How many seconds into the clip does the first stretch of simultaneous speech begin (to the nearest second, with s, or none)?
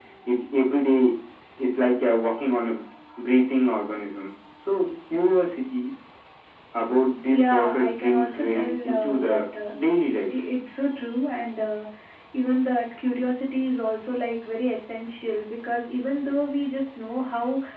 7 s